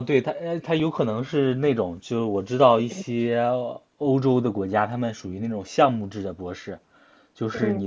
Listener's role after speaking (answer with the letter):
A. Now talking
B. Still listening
B